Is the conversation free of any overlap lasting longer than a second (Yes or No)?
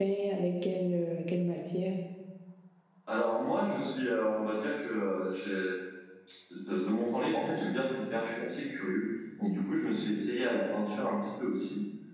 Yes